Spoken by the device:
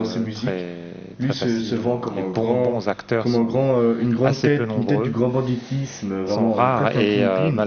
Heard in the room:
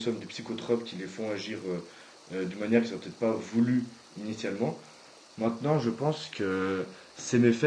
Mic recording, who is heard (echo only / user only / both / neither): user only